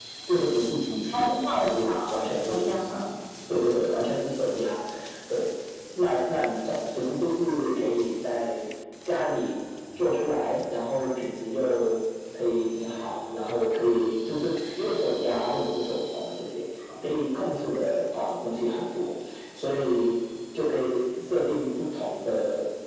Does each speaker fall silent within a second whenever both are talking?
No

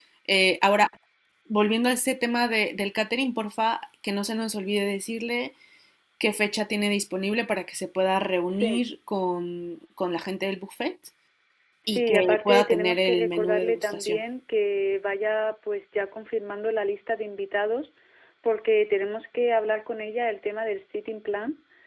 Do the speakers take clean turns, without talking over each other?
No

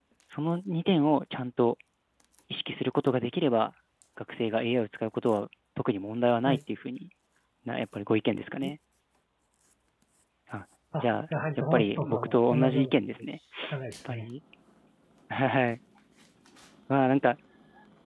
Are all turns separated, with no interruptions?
No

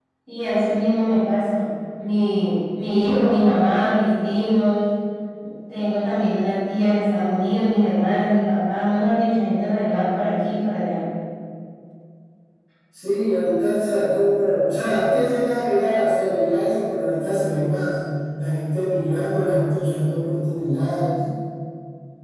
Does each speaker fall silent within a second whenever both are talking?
Yes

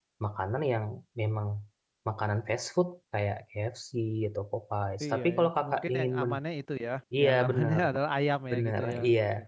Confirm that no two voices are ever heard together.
No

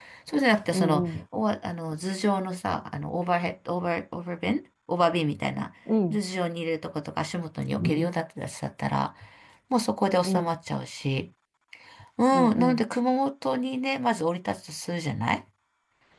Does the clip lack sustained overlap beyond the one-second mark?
Yes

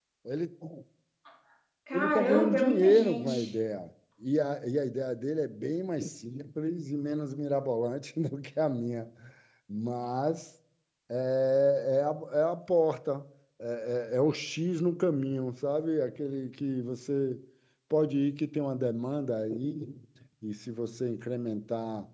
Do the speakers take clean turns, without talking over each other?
No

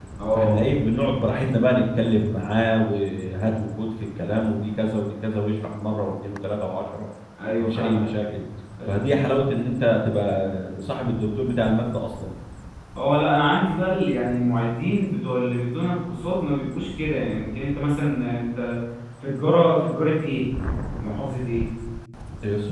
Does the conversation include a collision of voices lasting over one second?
No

